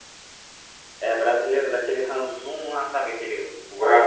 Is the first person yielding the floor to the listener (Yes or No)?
Yes